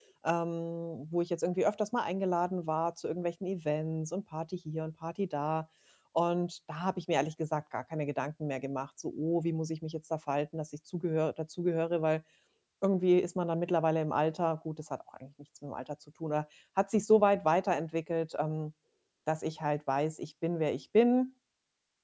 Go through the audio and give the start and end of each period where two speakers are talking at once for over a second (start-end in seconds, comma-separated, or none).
none